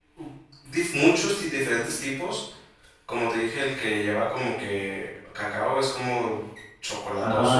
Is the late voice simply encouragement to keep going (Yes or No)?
No